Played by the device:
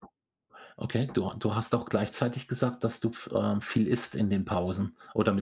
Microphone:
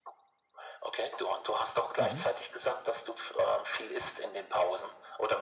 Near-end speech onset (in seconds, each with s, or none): 2.0 s